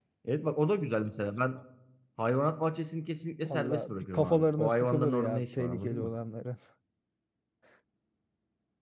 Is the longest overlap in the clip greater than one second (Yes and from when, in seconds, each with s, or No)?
Yes, from 3.4 s